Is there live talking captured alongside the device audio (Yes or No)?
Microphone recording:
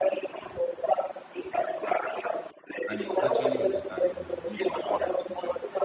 Yes